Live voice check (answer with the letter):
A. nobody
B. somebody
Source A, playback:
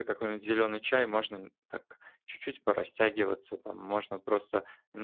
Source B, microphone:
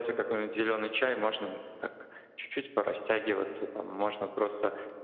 A